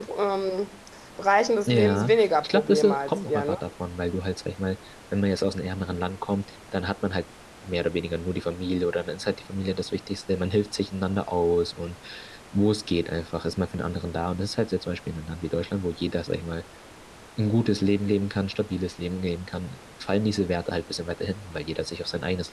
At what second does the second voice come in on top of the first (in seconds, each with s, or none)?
1.7 s